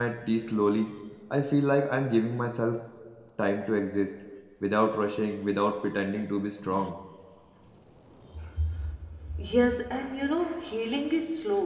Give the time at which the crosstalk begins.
none

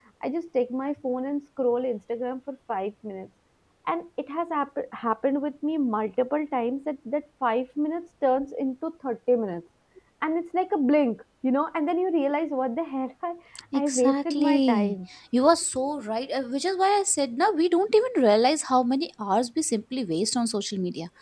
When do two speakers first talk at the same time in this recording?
14 s

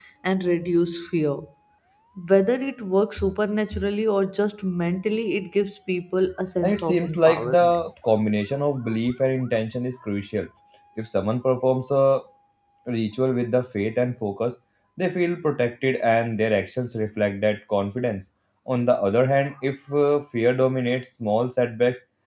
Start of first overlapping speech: 7 s

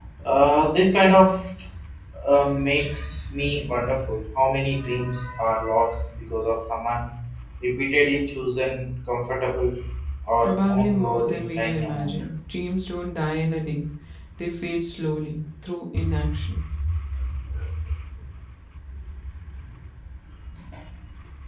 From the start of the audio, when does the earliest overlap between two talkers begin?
10 s

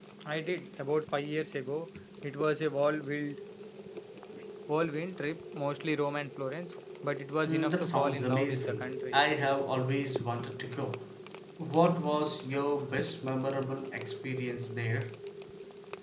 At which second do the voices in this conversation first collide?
7 s

